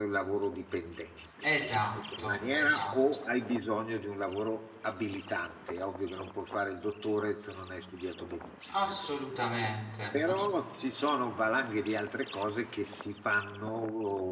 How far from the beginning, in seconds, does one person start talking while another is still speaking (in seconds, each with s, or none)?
1.4 s